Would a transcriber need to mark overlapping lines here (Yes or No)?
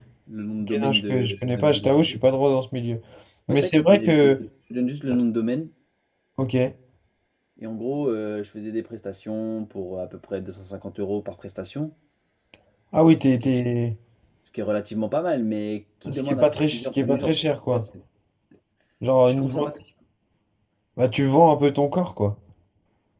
Yes